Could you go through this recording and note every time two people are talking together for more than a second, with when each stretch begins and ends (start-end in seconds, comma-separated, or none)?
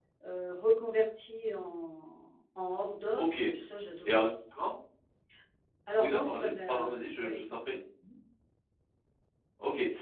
6.0-7.4